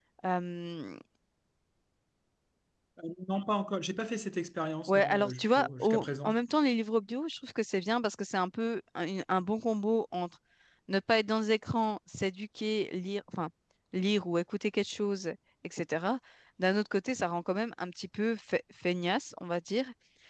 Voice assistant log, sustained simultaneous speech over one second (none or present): present